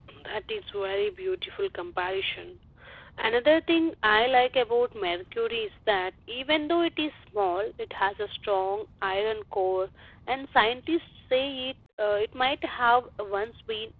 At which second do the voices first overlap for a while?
none

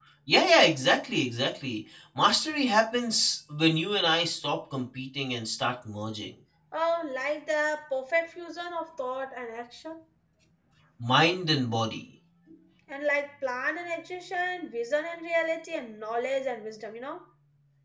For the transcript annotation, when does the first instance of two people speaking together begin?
none

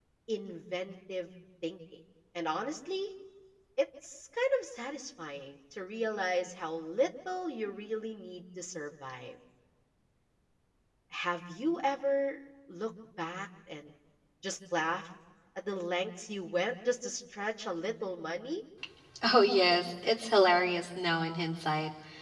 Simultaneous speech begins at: none

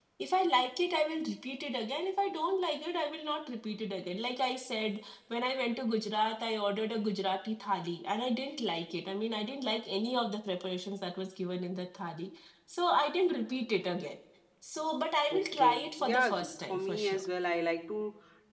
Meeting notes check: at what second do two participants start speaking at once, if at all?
15.3 s

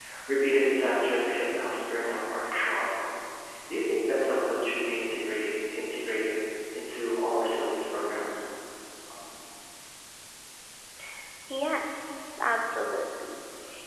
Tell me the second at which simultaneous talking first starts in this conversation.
none

